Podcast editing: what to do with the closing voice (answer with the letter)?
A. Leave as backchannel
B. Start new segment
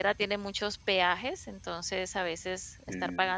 A